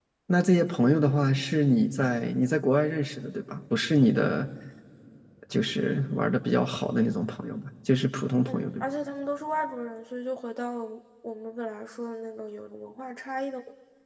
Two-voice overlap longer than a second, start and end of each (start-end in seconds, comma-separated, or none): none